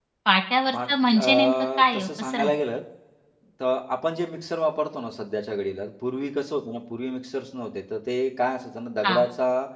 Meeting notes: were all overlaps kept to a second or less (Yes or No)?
No